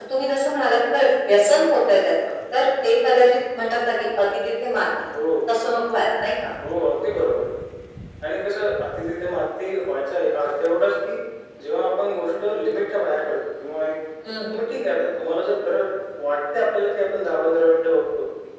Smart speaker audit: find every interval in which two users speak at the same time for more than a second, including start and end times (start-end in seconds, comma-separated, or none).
none